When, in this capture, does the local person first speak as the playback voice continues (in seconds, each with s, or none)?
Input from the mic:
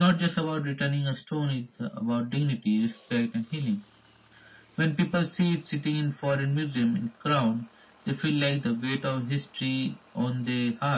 none